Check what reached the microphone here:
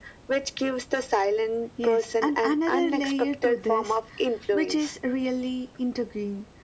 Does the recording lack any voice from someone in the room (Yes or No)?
No